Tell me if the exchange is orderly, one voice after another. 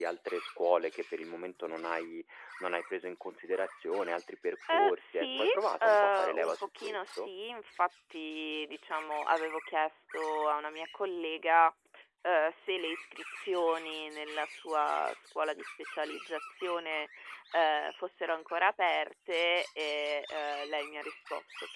No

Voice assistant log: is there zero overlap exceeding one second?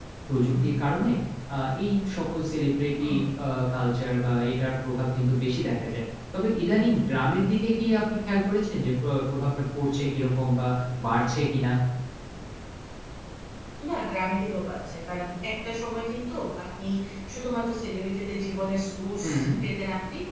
Yes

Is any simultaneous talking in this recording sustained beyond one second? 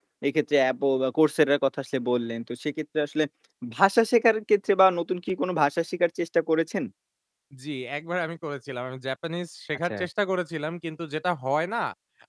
No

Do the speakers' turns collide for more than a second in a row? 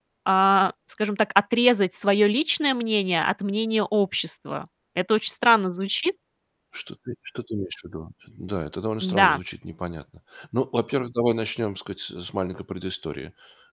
No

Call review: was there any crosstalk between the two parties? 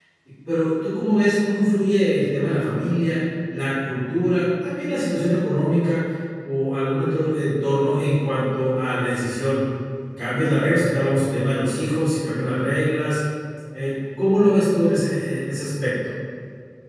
No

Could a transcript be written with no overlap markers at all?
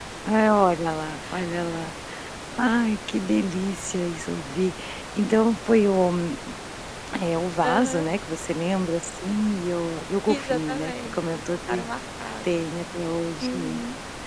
No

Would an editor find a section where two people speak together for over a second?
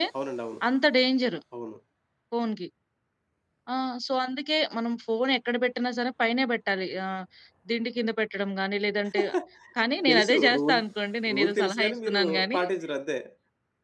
Yes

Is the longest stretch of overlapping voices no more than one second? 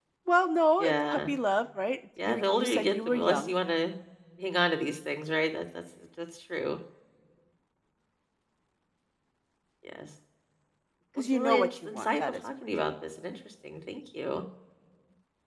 No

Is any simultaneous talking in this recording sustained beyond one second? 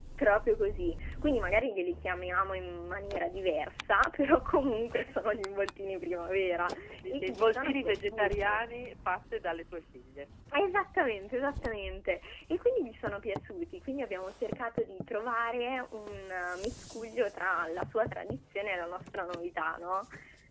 Yes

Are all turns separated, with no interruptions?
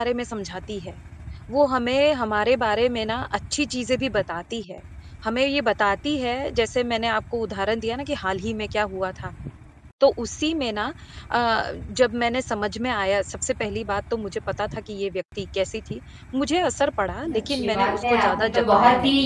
No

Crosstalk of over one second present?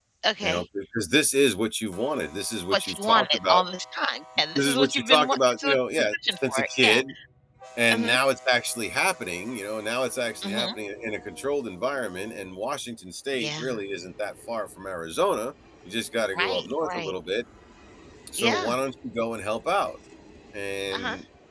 Yes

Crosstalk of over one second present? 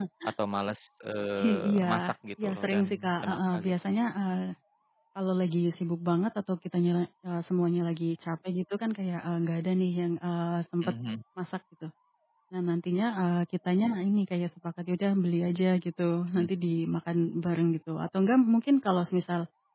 Yes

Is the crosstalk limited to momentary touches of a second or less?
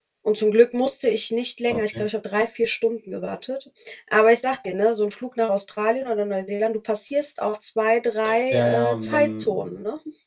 No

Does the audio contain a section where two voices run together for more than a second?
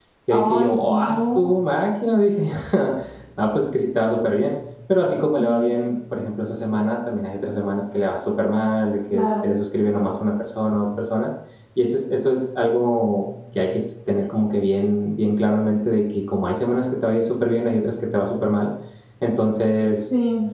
Yes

